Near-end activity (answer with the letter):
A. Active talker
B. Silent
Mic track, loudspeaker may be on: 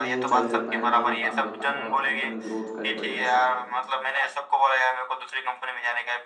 A